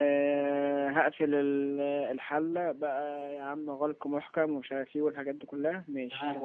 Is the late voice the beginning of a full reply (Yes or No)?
Yes